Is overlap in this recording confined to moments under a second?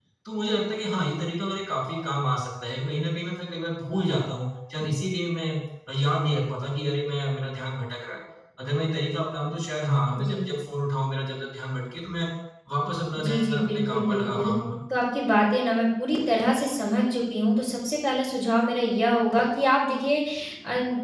No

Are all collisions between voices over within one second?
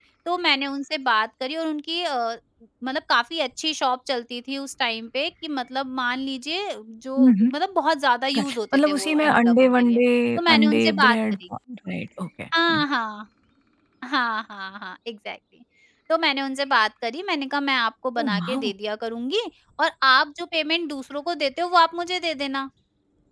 No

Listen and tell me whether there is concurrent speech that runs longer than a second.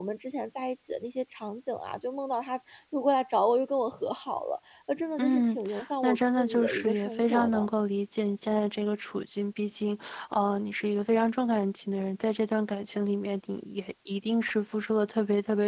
Yes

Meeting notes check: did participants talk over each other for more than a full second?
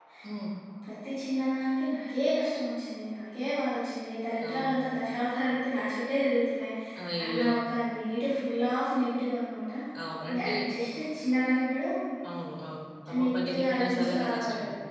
Yes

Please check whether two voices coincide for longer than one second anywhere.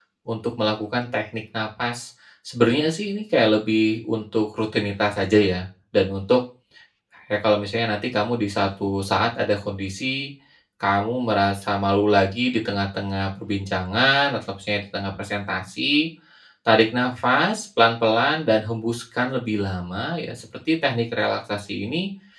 No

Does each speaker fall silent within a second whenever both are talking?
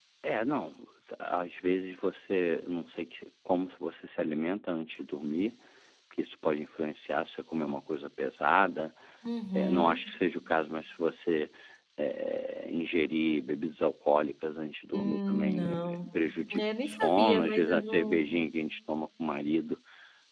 No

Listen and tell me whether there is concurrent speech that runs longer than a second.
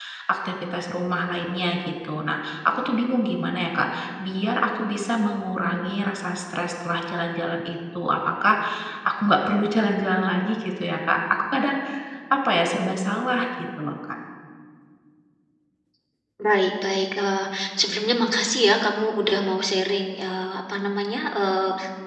No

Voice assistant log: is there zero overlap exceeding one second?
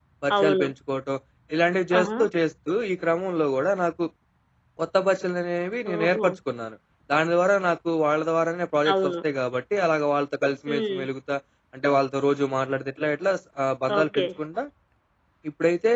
Yes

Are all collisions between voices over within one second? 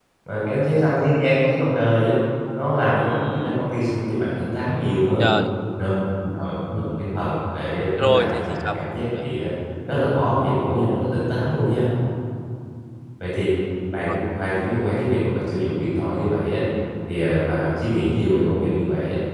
No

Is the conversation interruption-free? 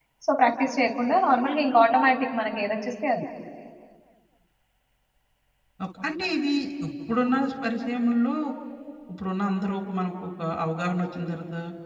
Yes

